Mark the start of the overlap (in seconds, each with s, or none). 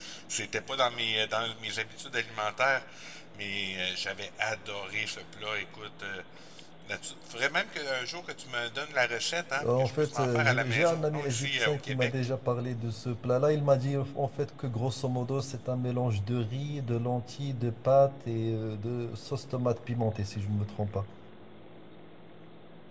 9.6 s